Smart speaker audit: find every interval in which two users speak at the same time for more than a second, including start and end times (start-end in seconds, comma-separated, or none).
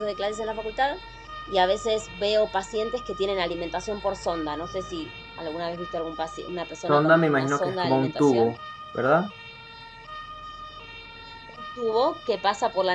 6.9-8.5